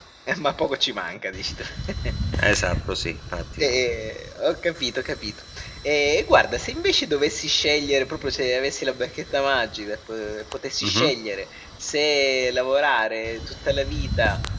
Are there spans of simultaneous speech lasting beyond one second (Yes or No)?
No